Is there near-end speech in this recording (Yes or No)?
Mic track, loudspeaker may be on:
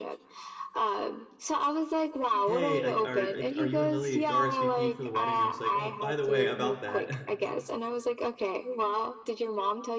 Yes